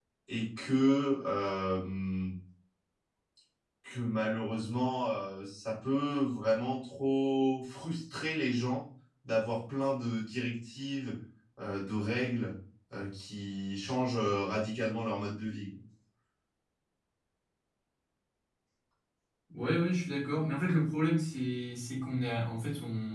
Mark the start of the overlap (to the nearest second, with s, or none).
none